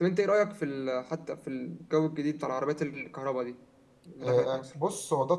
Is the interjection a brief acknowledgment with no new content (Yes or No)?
No